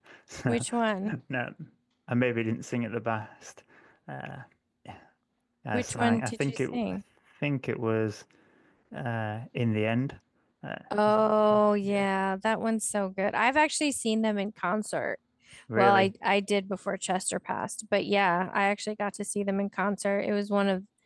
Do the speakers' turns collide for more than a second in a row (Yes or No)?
Yes